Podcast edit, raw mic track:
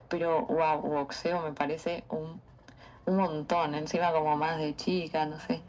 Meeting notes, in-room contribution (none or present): none